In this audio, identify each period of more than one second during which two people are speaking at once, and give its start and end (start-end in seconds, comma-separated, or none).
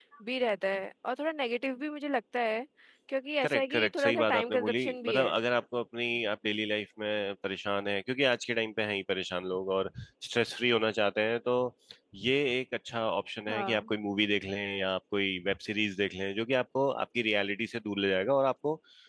3.4-5.3